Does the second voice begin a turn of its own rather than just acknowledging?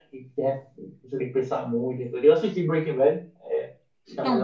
Yes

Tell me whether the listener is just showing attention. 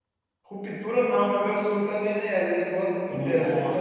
No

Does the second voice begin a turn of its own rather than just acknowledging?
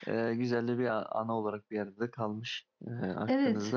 Yes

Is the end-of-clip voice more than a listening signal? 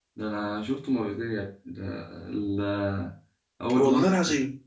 No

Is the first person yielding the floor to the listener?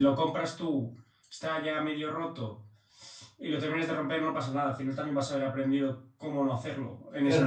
Yes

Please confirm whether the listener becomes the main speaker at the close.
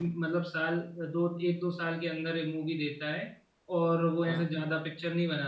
No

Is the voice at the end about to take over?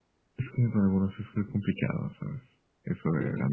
Yes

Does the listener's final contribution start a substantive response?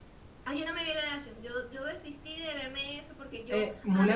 Yes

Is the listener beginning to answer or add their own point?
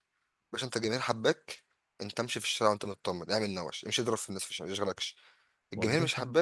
No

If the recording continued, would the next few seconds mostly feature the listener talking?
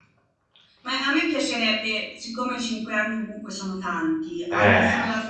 No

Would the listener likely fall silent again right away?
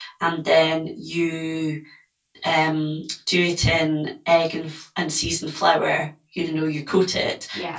Yes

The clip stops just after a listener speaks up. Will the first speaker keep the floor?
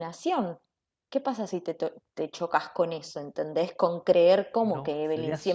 No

